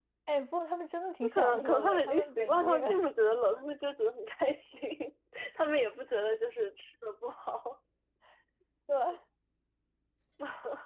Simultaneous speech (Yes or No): Yes